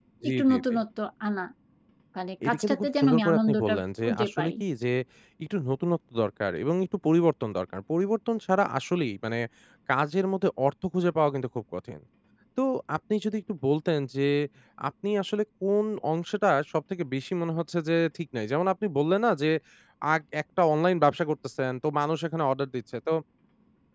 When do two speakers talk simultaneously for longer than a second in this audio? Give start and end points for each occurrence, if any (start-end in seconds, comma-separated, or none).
2.5-4.5